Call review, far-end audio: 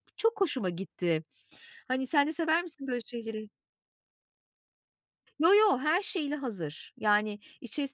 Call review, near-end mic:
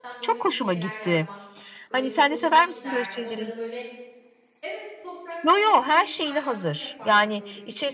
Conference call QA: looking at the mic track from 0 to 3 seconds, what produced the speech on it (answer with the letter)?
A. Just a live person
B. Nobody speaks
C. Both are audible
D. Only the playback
C